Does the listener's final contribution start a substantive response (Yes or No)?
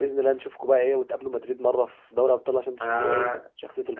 Yes